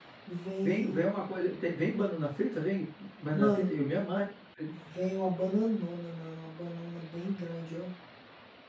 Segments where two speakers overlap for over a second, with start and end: none

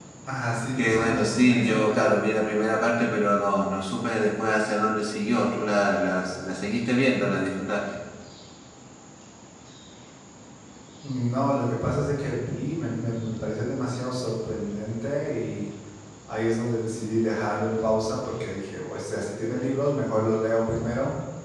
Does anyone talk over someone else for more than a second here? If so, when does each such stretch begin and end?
0.8-2.2

